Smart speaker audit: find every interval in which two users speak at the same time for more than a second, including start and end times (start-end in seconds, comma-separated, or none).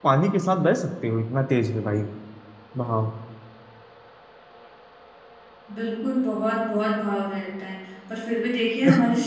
none